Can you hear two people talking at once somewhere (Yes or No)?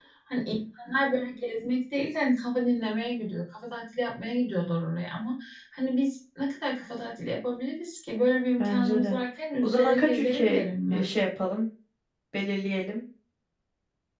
Yes